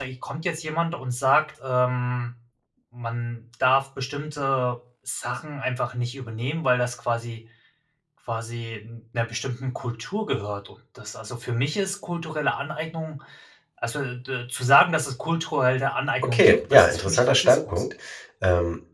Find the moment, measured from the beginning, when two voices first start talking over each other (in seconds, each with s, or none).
16.2 s